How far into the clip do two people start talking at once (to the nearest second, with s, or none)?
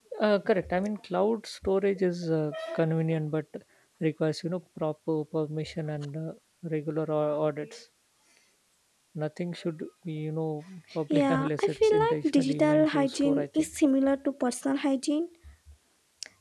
11 s